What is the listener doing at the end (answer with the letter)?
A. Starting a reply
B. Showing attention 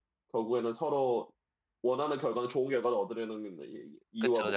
A